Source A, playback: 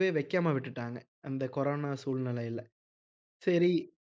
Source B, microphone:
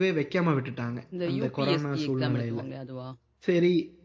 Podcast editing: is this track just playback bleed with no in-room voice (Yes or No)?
No